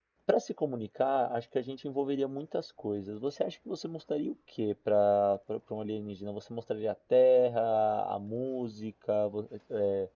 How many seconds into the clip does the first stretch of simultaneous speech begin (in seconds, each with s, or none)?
none